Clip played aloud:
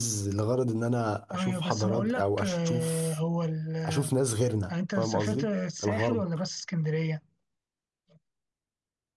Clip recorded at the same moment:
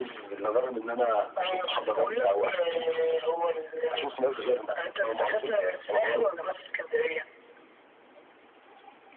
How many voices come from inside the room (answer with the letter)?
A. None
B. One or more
A